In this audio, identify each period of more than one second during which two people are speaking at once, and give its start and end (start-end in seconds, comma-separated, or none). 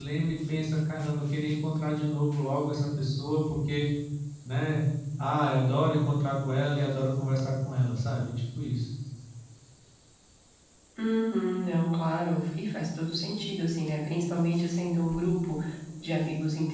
none